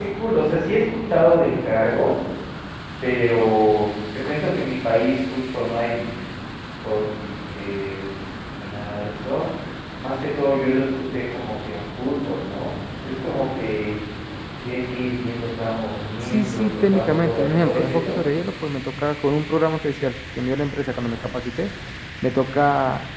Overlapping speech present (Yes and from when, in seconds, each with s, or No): Yes, from 16.3 s